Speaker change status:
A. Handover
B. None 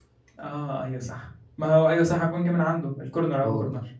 A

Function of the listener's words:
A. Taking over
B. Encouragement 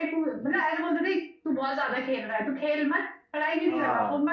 B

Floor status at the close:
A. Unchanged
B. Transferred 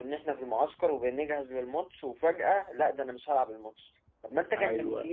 A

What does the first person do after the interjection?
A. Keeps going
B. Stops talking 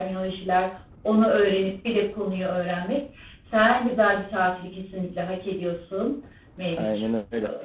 B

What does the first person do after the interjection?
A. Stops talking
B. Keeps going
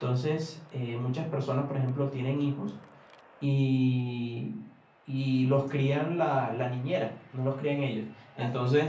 B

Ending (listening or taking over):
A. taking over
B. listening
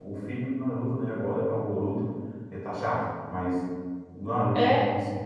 B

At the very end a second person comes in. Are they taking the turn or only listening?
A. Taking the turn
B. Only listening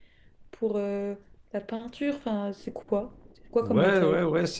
A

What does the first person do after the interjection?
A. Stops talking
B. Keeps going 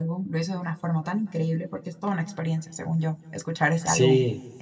A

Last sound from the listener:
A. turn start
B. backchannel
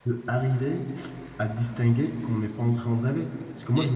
B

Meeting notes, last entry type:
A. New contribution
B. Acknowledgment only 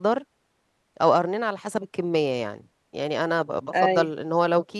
B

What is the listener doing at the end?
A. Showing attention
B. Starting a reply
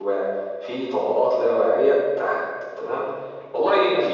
A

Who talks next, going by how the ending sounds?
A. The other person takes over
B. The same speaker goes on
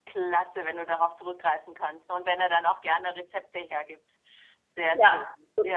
A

